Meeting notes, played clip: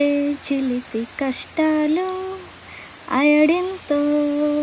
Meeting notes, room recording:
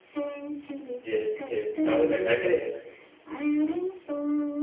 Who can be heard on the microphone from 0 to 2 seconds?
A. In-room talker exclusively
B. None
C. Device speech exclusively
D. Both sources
D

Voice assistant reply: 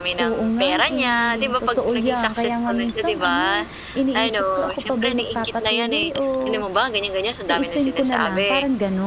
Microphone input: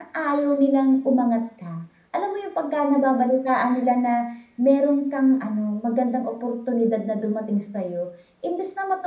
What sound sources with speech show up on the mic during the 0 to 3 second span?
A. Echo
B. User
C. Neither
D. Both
B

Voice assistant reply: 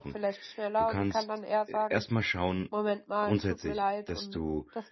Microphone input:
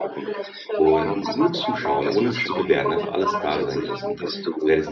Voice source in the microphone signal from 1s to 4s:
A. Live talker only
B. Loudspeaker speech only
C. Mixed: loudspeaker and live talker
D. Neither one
C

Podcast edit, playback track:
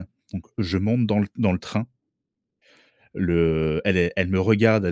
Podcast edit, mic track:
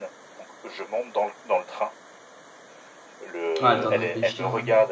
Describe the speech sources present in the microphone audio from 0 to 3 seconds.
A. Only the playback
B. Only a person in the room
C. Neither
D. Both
A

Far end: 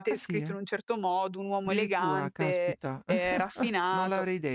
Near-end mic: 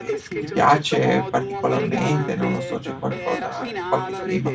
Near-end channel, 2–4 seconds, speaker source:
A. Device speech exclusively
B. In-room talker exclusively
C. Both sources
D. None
C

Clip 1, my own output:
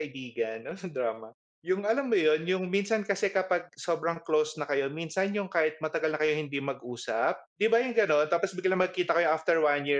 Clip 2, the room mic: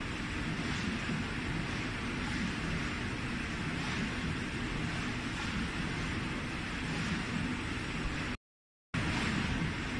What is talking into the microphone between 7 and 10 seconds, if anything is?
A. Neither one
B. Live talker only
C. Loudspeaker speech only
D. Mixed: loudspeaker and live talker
A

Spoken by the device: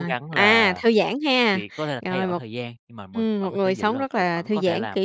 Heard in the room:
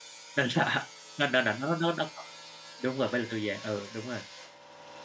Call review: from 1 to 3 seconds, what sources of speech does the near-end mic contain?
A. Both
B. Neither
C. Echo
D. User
D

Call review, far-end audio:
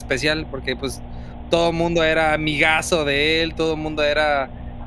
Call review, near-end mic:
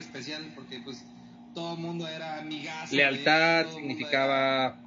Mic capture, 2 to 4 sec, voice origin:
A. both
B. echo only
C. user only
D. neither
A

